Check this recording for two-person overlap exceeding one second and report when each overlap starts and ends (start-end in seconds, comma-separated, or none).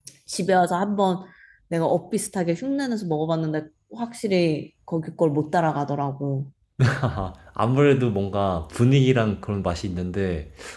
none